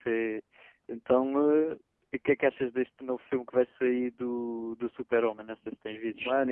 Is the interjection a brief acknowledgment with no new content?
No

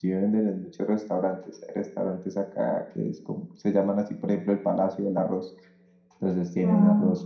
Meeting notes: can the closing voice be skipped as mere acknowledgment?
Yes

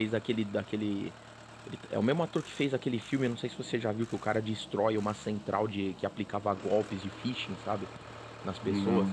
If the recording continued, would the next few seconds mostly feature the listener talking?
No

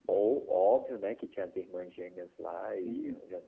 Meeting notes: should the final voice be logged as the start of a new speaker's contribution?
Yes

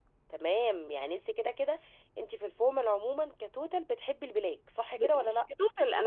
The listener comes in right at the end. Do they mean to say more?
Yes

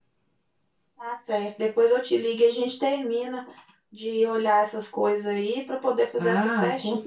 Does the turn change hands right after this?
Yes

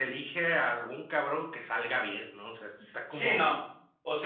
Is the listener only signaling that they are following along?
No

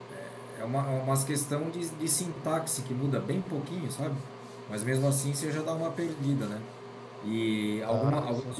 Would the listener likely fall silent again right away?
Yes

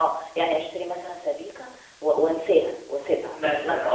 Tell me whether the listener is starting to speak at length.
Yes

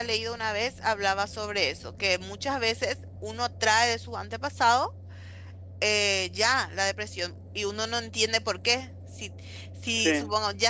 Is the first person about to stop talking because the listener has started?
No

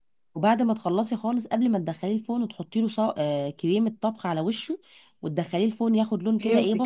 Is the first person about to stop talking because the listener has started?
Yes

